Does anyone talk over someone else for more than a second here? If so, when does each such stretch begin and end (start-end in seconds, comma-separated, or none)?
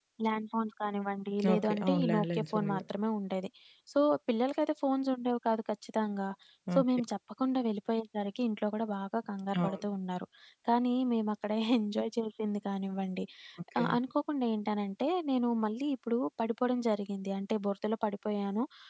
1.5-2.8